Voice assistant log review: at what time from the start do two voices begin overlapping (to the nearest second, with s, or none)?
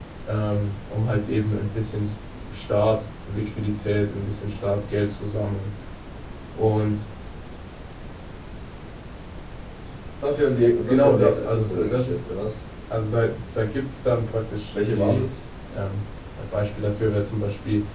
11 s